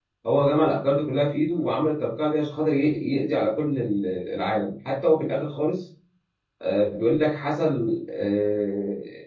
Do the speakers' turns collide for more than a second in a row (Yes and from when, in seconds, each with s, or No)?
No